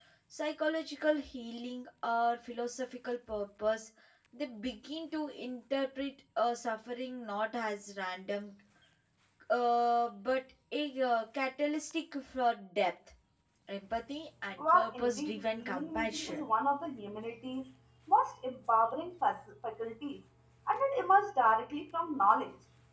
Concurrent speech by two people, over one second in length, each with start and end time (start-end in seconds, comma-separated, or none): 14.6-16.5